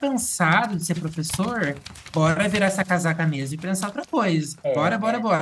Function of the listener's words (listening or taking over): taking over